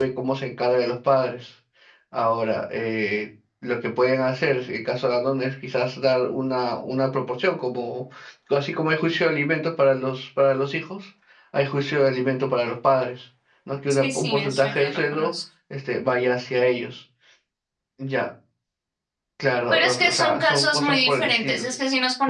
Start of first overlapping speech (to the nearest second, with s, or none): 14 s